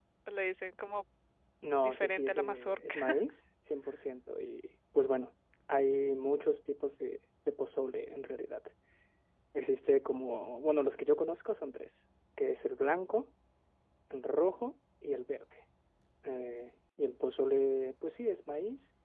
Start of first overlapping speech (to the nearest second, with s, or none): 2 s